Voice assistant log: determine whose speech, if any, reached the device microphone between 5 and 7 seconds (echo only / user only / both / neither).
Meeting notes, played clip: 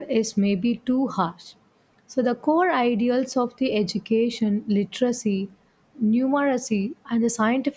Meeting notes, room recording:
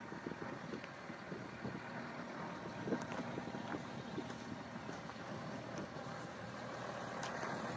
neither